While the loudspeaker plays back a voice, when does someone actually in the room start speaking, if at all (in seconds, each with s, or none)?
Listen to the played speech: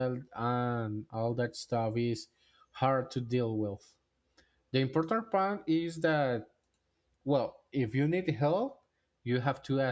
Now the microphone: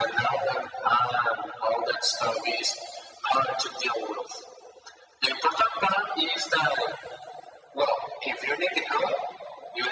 none